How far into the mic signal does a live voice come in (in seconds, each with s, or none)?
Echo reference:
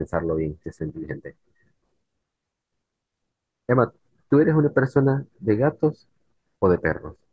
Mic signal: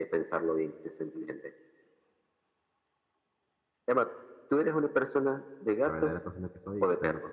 5.8 s